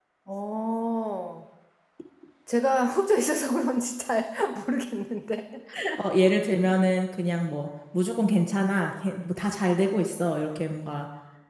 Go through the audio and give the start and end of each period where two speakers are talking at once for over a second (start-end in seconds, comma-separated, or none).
none